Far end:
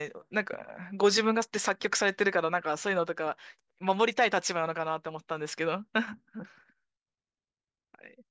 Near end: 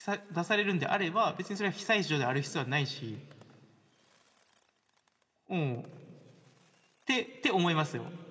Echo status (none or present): none